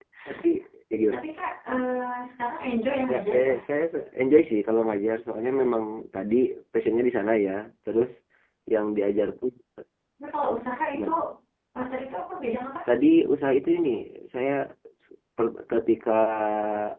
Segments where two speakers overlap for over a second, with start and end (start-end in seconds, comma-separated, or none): none